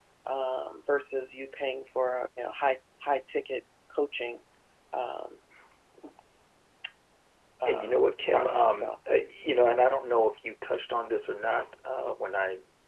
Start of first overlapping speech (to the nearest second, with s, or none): 8 s